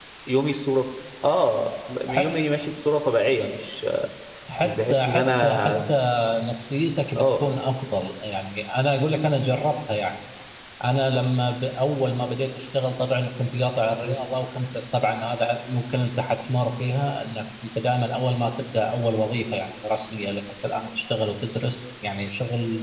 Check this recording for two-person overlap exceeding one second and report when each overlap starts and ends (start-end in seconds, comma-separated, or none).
4.6-5.9